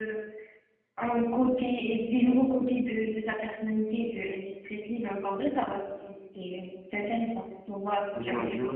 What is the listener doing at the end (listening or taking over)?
taking over